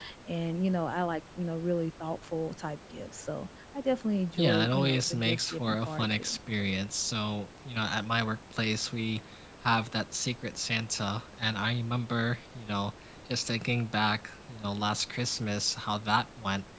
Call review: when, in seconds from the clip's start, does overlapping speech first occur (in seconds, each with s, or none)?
4.4 s